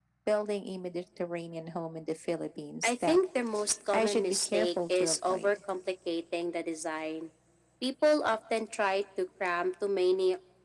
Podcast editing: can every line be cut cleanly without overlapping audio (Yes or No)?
No